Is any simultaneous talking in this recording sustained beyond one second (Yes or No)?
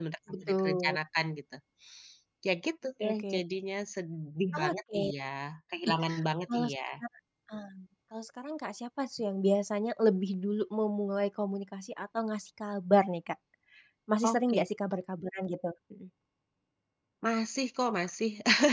No